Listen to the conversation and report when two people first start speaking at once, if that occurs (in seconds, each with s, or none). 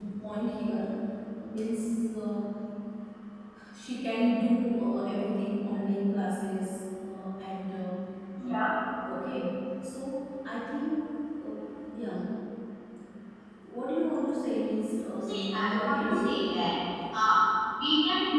15.2 s